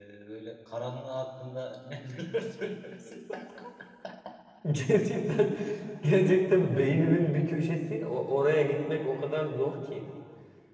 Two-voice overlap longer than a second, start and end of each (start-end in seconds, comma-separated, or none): none